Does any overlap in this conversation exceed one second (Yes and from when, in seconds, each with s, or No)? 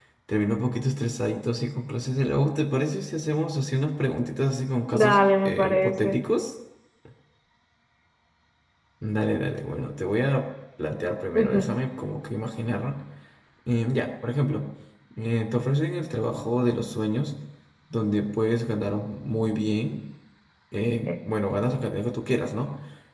Yes, from 4.9 s